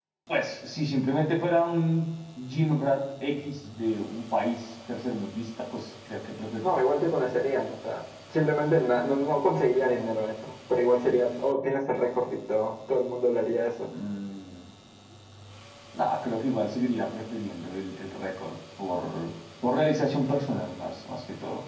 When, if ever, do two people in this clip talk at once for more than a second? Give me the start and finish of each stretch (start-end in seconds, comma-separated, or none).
none